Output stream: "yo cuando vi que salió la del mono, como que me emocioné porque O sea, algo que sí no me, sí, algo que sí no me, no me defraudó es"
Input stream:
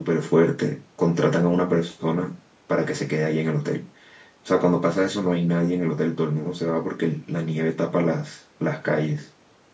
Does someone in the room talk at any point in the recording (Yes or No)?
Yes